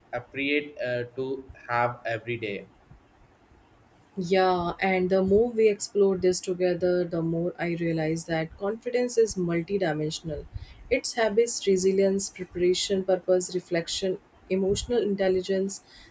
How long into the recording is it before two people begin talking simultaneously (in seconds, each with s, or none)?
none